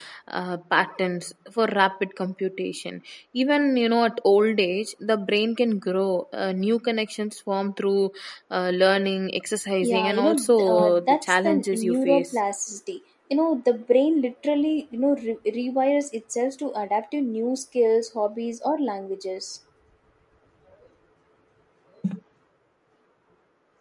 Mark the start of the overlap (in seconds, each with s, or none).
9.8 s